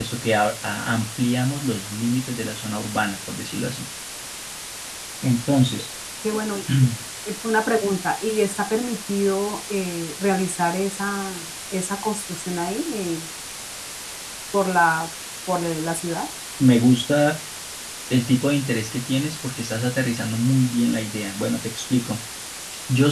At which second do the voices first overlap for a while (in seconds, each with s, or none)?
none